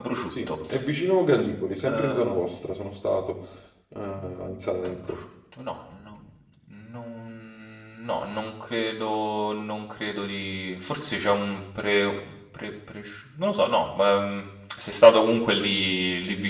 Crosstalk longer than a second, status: none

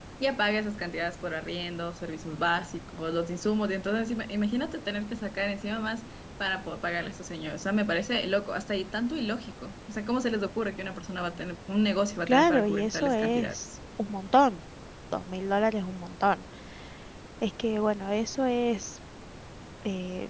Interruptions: present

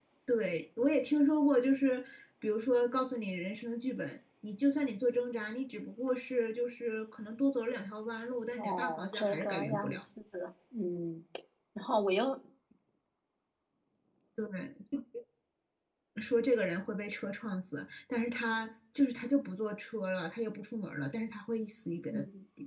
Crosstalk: present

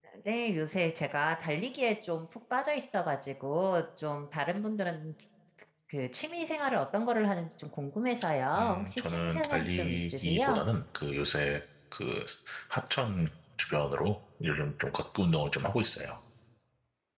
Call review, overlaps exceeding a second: present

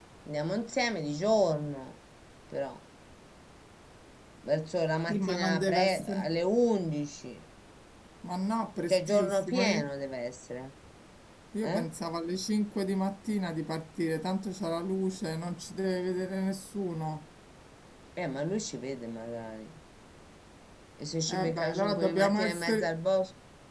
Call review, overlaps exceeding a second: present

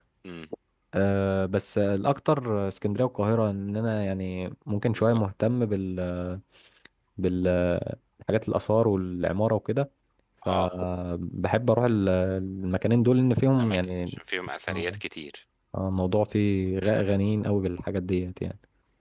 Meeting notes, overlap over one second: none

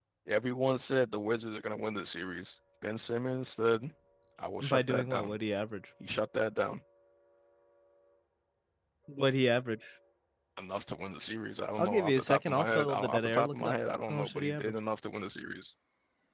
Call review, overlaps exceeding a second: present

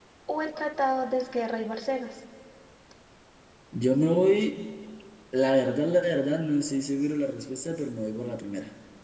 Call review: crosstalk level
none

